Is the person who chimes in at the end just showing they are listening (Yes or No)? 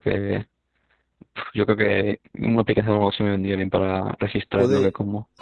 No